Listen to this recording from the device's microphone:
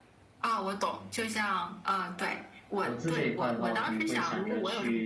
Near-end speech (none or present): present